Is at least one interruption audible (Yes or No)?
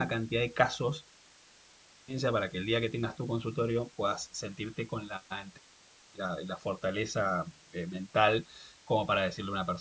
No